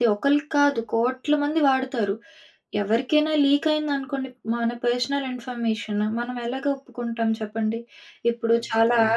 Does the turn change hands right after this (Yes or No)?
No